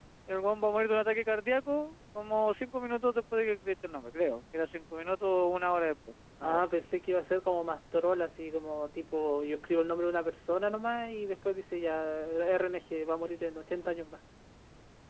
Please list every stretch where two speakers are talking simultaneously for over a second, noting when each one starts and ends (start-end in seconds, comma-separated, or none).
none